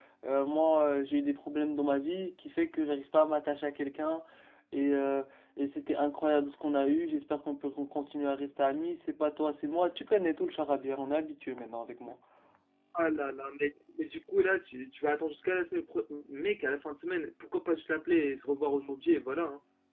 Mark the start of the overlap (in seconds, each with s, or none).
none